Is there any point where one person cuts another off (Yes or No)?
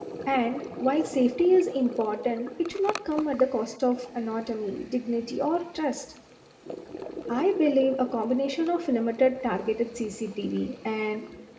No